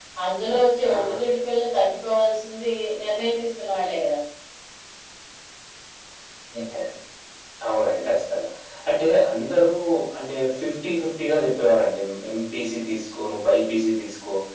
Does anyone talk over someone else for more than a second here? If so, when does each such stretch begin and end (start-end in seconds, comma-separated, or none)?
none